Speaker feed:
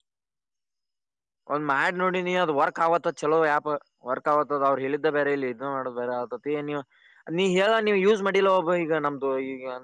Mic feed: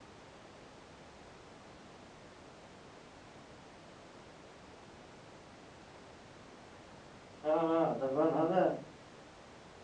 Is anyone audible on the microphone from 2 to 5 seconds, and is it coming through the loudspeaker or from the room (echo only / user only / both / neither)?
neither